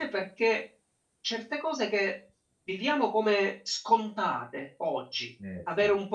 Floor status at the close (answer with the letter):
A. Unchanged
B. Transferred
A